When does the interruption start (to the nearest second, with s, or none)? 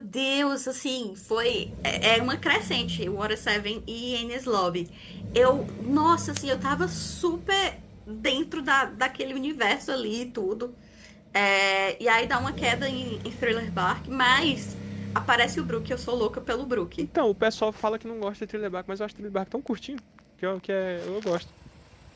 none